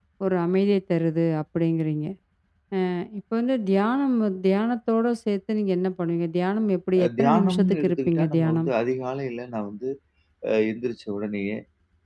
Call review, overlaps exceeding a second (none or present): present